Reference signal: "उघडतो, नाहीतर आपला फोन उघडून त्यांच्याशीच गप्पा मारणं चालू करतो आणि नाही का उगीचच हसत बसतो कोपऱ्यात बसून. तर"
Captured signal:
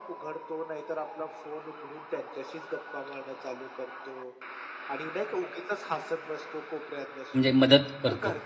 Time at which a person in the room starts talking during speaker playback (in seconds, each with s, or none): 7.3 s